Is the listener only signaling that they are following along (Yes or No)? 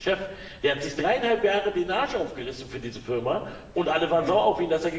Yes